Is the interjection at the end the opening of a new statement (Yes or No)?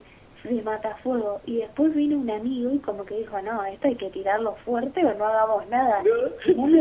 No